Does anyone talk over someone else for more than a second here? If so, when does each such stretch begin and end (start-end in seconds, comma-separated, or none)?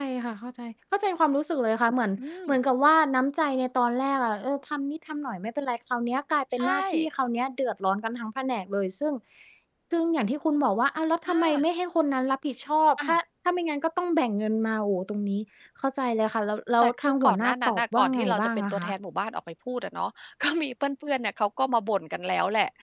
16.8-18.9